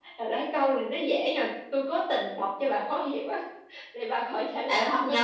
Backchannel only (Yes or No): No